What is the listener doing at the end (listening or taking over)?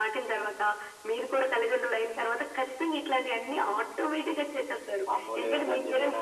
taking over